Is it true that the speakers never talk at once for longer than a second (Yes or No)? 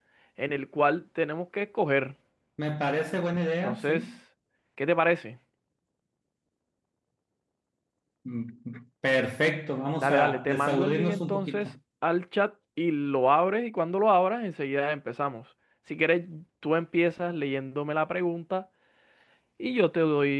No